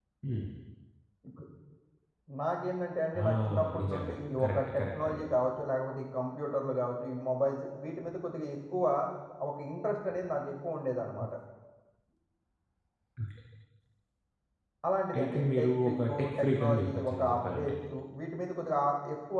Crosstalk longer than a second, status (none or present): present